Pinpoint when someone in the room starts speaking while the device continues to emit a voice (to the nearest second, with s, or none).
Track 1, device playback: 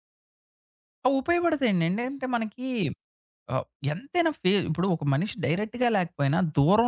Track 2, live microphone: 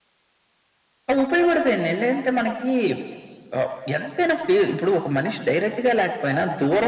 none